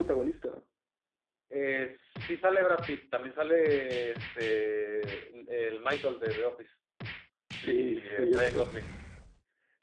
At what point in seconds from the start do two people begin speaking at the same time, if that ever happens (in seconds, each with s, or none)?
7.6 s